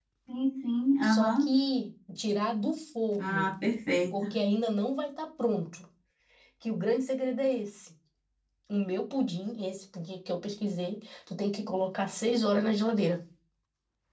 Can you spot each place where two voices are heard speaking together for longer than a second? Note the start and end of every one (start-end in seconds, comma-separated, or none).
none